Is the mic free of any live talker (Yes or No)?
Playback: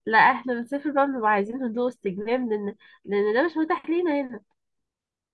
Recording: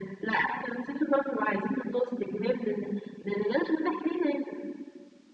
Yes